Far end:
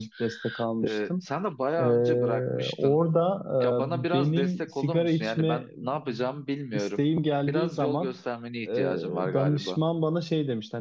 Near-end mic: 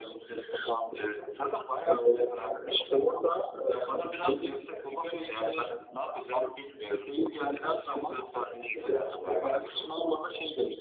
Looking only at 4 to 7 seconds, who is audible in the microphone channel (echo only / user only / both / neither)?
echo only